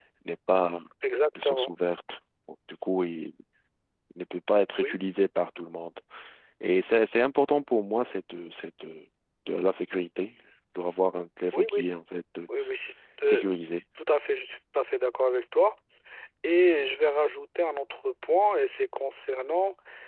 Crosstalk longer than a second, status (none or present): none